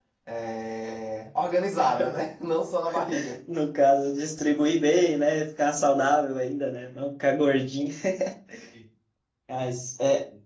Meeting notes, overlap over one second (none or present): none